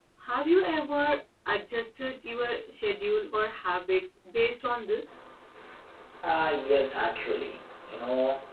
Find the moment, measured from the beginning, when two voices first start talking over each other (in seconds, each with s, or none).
none